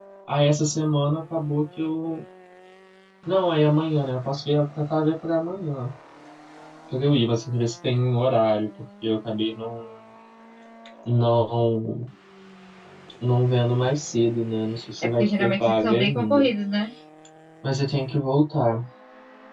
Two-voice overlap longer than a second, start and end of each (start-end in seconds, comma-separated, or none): 15.0-16.4